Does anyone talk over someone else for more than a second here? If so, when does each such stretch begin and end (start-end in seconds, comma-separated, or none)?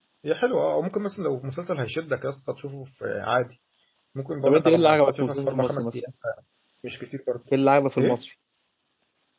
4.5-5.9